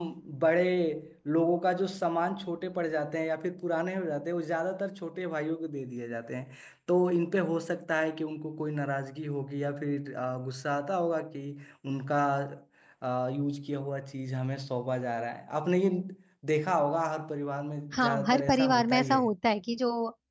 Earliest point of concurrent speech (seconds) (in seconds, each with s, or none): 17.9 s